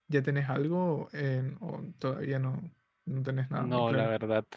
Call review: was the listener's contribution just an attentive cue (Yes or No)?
No